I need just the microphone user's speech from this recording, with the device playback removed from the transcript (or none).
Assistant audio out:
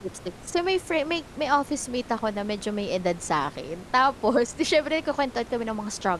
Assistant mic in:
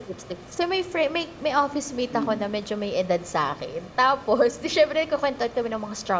Hmm.